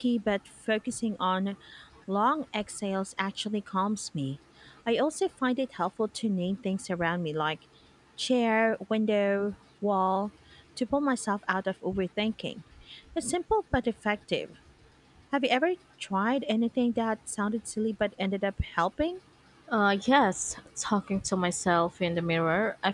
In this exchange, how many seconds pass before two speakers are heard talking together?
none

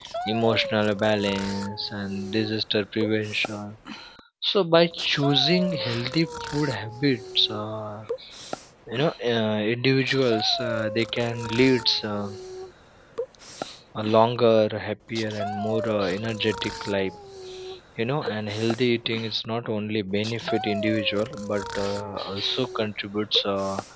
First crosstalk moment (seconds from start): none

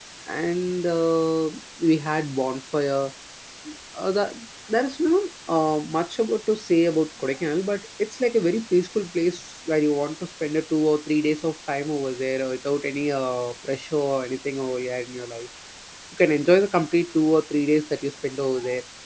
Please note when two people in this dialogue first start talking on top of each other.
none

